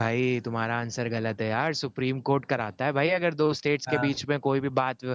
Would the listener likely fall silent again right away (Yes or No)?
Yes